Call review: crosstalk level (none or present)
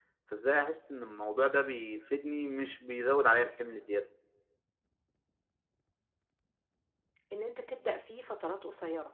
none